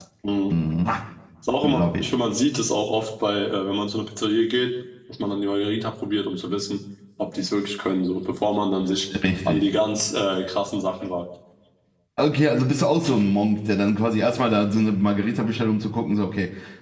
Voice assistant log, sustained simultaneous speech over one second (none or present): none